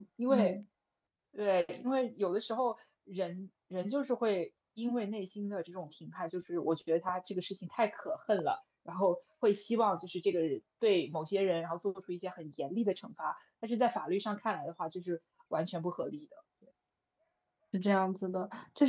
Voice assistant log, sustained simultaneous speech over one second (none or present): none